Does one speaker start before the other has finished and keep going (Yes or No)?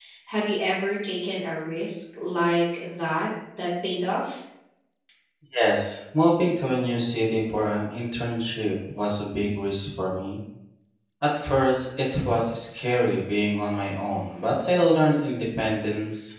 No